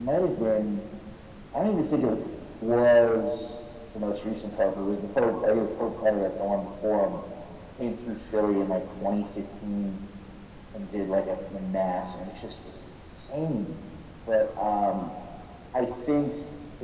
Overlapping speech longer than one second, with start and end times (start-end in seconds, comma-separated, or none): none